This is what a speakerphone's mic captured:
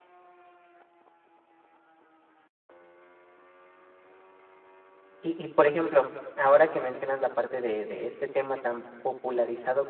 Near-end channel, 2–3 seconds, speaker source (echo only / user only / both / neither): neither